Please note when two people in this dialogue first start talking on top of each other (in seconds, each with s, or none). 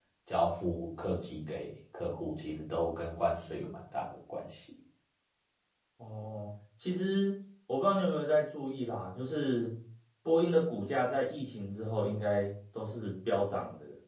none